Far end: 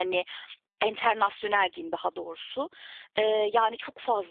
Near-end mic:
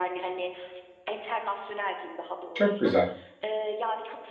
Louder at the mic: user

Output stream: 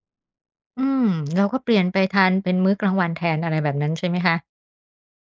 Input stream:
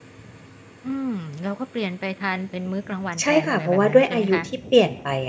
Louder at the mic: user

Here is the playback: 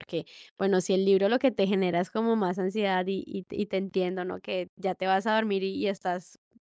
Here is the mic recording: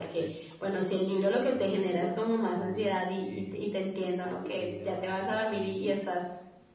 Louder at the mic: echo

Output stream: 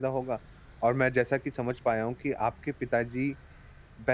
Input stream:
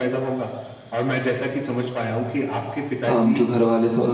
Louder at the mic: user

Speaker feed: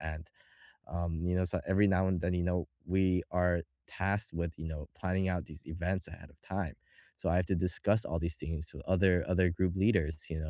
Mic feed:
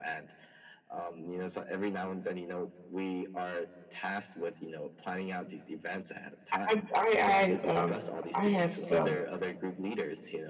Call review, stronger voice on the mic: user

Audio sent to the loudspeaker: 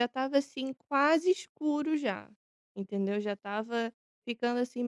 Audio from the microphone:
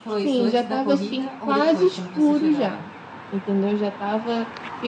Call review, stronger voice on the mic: echo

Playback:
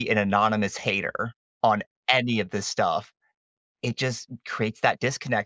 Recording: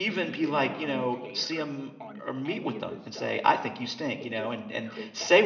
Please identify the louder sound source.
user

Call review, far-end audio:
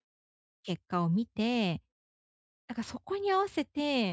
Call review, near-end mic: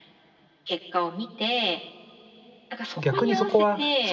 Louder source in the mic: user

